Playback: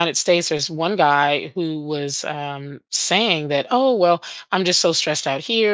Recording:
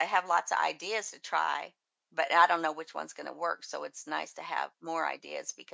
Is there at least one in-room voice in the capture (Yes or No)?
Yes